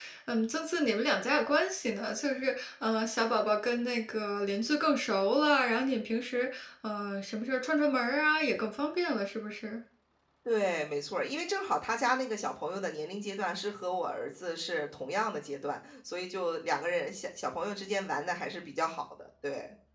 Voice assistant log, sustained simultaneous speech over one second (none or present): none